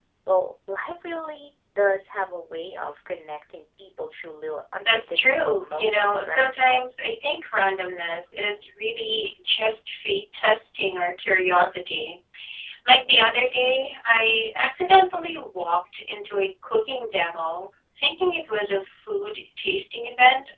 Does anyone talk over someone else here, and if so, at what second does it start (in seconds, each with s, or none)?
4.8 s